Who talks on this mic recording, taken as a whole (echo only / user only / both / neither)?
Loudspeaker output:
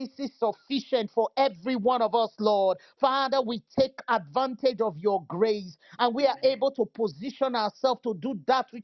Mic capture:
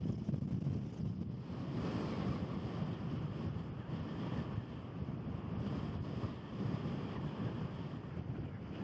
neither